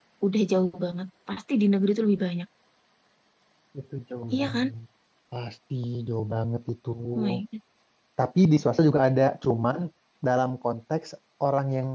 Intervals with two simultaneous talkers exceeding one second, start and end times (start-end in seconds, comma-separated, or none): none